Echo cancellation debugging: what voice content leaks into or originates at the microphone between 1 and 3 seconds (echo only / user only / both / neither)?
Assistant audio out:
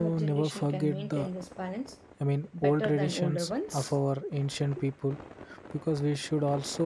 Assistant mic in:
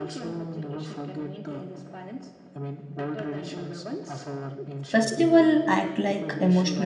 echo only